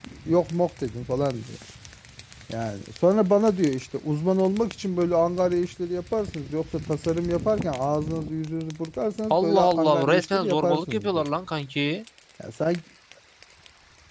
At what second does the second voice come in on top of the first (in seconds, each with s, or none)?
9.3 s